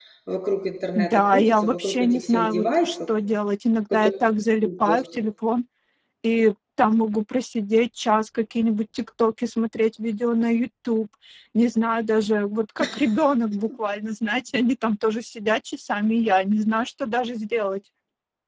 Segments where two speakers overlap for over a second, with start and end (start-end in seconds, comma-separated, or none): 0.9-3.1